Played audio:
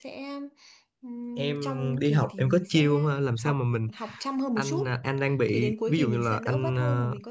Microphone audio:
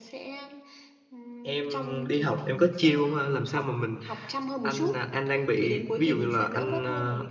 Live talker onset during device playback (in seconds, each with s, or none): none